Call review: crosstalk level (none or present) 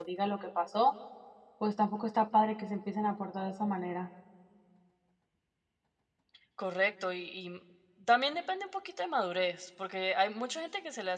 none